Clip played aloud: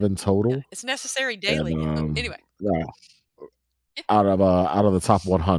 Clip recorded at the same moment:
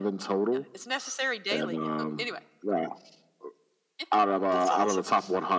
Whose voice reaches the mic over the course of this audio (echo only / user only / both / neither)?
both